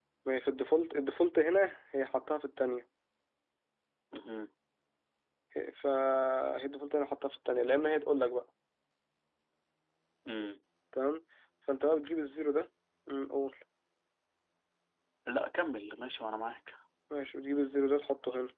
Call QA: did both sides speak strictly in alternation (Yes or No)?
Yes